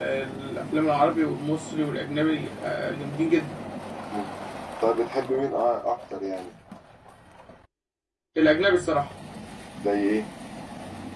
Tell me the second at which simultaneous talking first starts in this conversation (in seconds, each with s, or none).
none